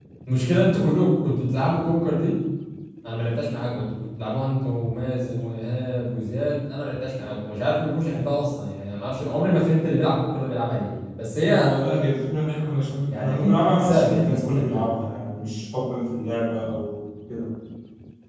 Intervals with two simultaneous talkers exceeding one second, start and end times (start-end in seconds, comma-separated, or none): 13.1-14.9